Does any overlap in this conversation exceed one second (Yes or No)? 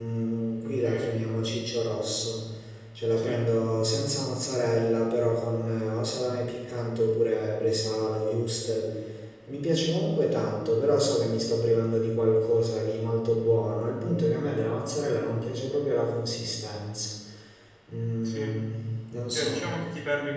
No